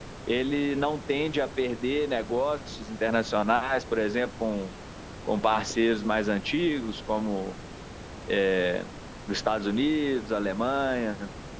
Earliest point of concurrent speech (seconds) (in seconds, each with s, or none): none